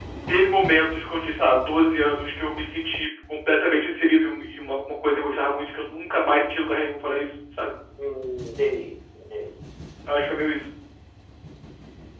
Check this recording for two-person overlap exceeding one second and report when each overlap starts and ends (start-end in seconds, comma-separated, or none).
none